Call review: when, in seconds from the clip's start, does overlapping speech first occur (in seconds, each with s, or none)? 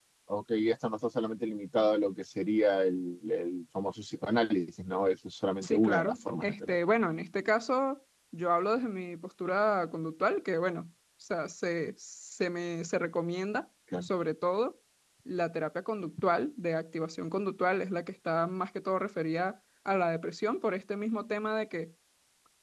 5.6 s